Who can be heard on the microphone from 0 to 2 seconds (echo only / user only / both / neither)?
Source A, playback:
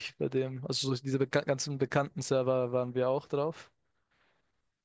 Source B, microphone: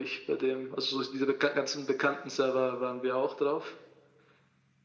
echo only